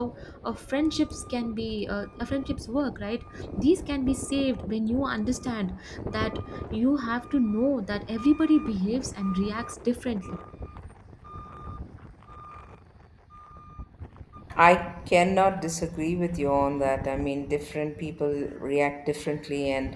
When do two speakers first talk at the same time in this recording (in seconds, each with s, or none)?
none